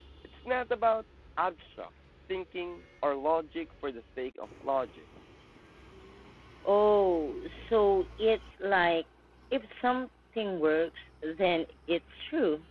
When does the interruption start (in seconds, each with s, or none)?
none